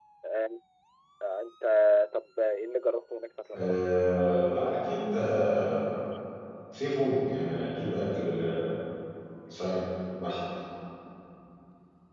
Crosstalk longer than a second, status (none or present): none